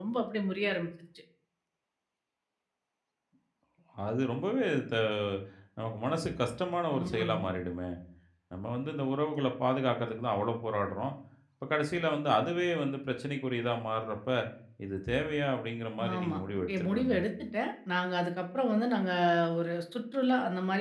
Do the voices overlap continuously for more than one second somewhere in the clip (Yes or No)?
No